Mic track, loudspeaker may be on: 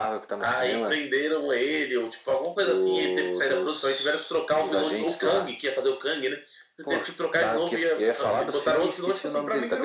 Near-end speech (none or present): none